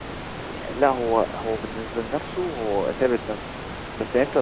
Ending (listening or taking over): listening